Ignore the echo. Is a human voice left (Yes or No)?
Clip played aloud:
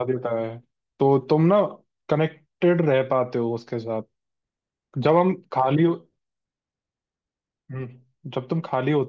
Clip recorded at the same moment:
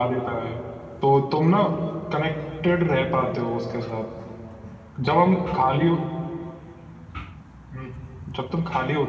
No